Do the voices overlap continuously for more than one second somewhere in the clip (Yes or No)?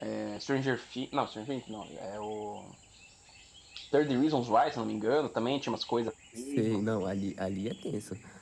No